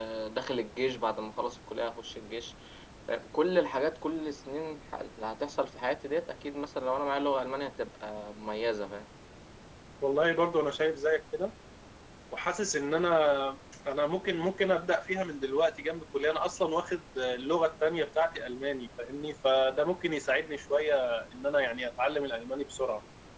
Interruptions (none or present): none